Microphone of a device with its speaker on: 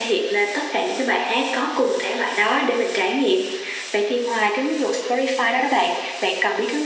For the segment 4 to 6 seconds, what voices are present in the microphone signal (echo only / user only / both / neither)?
echo only